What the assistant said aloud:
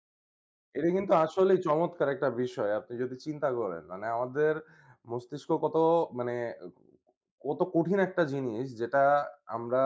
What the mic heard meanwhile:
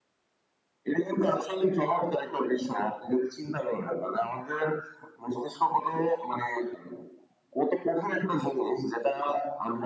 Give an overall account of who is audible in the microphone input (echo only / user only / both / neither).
echo only